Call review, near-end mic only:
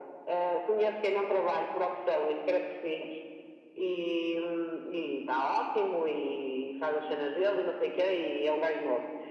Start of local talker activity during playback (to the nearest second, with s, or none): none